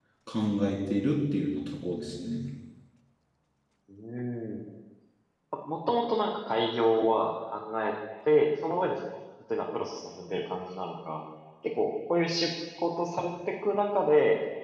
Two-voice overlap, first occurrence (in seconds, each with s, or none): none